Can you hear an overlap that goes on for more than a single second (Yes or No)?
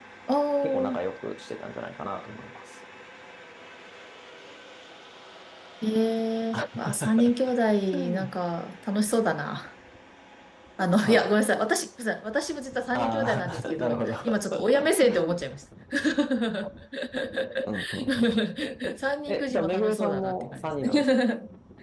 Yes